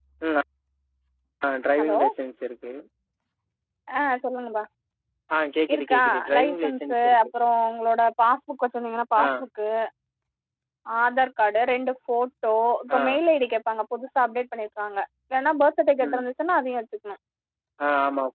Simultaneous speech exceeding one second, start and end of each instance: 5.7-7.2

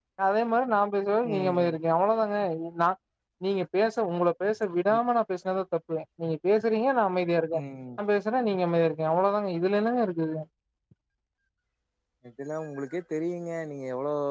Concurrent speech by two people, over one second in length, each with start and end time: none

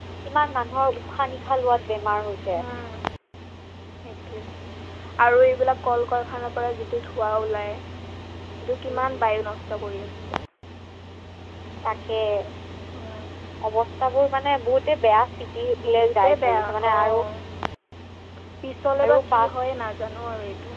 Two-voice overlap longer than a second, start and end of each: 15.8-17.1

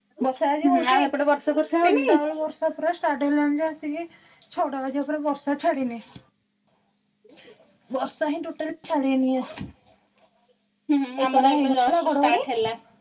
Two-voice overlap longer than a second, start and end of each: 11.2-12.4

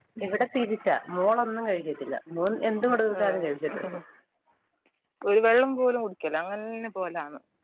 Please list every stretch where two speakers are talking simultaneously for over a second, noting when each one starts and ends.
none

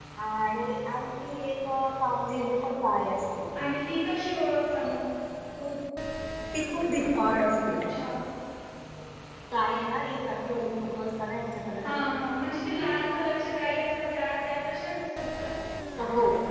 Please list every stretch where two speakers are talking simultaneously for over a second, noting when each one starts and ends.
none

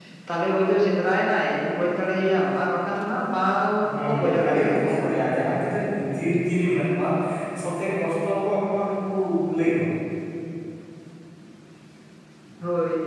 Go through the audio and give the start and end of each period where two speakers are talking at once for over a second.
3.8-5.1

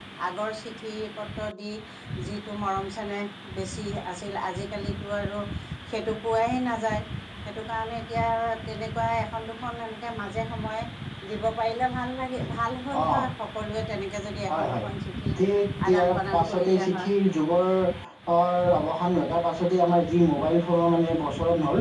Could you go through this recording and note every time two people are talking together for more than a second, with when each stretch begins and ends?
15.9-17.1

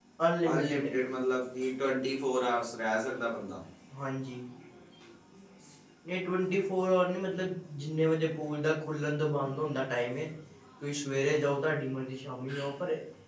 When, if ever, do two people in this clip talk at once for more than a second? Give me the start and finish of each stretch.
none

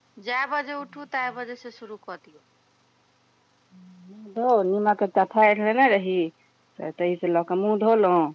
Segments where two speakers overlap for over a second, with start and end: none

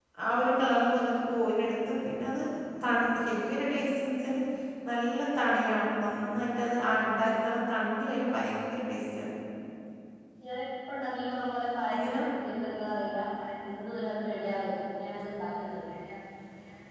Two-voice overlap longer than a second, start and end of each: none

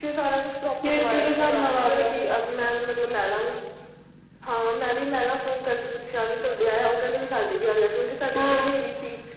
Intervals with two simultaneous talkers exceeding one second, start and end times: 0.9-2.1

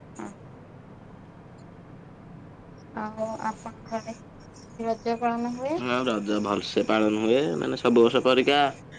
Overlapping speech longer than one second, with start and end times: none

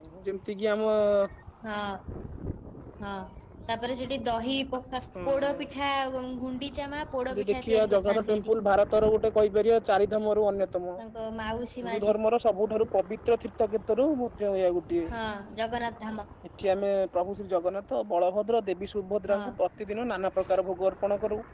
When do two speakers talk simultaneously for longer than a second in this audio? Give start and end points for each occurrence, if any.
7.3-8.6

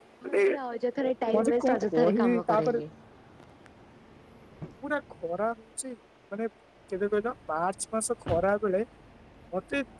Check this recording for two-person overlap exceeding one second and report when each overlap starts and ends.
1.3-2.8

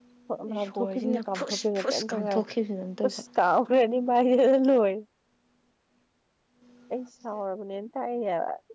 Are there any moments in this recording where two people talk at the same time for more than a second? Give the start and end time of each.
0.6-2.3

